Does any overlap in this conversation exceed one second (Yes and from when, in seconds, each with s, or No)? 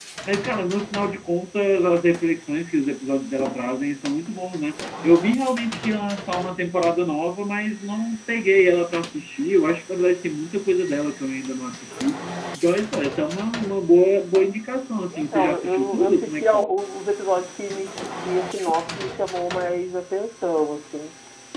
Yes, from 15.1 s